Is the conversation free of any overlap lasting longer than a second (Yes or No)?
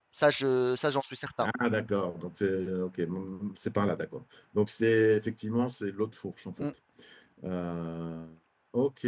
Yes